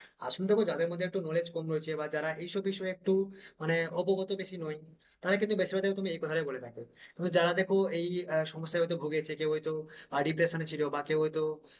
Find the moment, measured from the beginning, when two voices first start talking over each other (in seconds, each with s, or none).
none